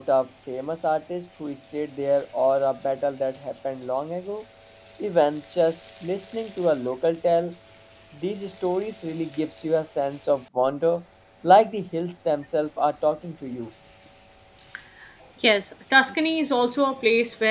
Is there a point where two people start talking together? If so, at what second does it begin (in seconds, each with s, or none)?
none